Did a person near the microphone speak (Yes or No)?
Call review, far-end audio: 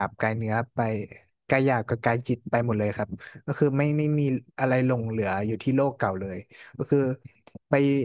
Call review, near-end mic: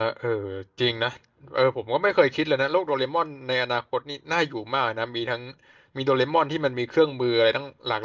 Yes